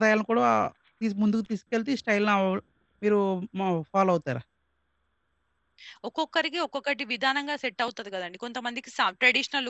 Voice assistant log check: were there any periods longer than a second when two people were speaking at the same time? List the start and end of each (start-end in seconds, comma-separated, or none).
none